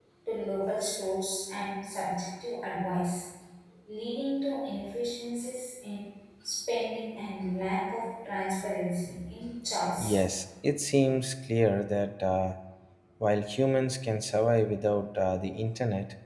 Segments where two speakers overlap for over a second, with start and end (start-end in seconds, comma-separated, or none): none